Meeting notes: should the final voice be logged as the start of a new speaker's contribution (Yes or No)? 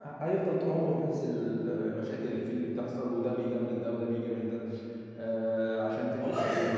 Yes